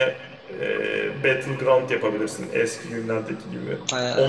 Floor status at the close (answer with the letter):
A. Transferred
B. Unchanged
B